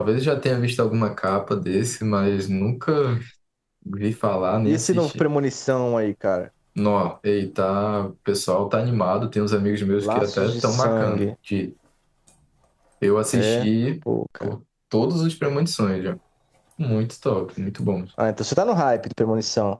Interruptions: present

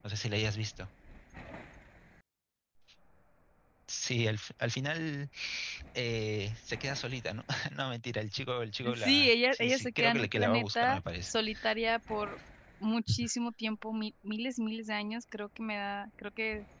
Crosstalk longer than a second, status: present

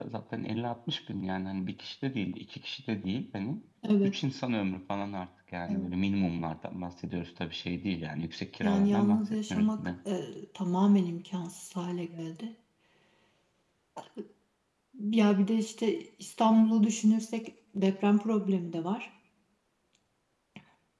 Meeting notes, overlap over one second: present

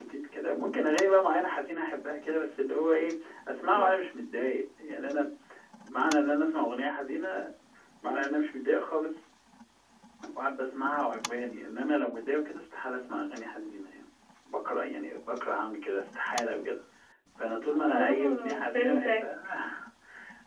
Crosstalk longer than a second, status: present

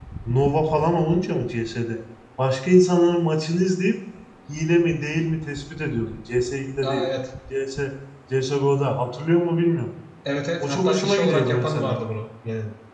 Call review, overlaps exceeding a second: present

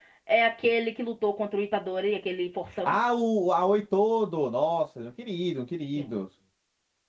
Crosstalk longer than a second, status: none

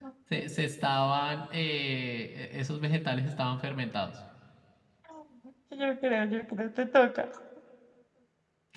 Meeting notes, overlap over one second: none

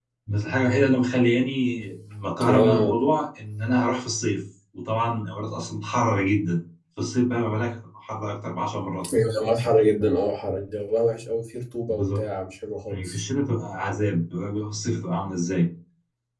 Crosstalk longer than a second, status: none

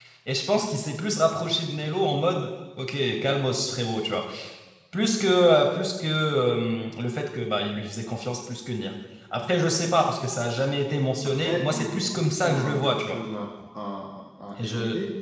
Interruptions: present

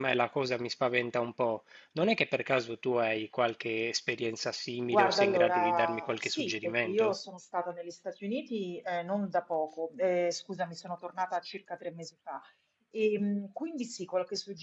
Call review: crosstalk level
present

